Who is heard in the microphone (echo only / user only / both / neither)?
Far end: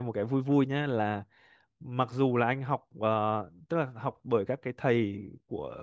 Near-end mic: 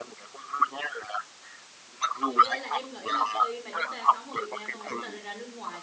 both